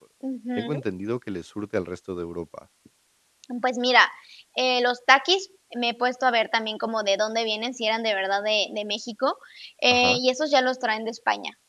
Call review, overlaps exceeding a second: none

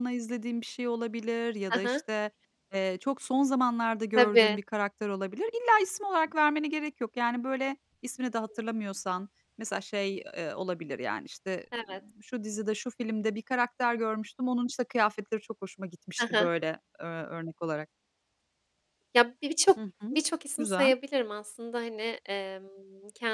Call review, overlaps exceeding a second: none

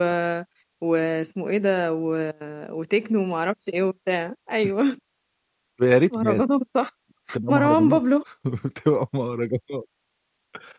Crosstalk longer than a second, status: none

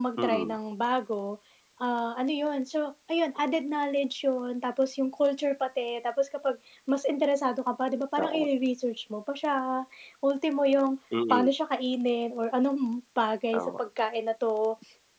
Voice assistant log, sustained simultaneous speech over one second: none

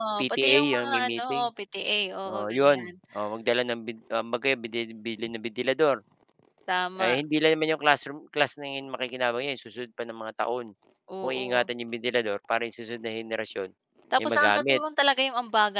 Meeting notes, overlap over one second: present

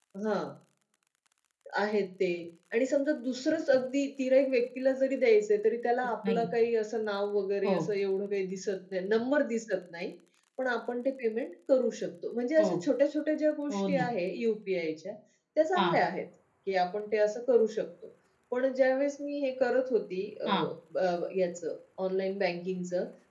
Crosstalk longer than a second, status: none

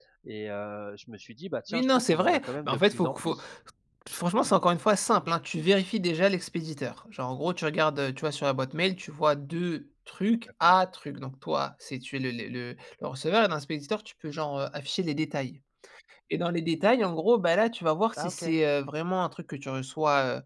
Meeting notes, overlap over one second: present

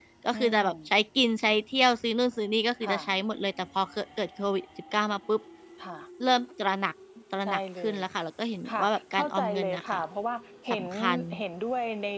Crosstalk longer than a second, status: present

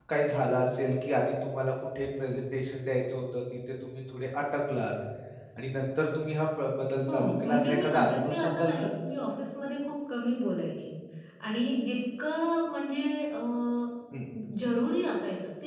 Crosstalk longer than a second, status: present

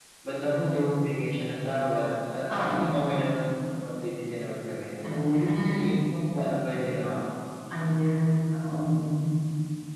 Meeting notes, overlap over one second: none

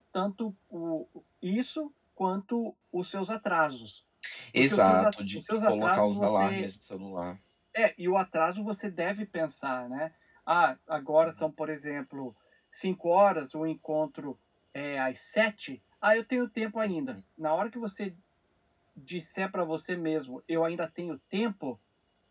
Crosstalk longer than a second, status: present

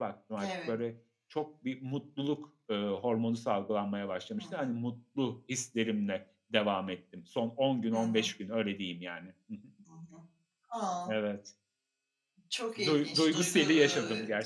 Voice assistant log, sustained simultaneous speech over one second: present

